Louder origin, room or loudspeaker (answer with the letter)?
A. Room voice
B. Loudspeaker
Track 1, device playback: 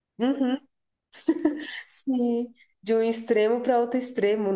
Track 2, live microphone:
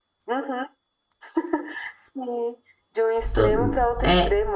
A